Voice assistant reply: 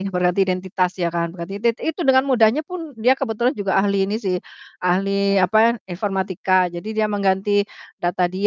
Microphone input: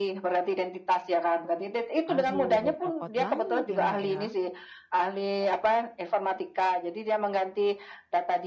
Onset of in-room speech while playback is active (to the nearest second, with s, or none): 2 s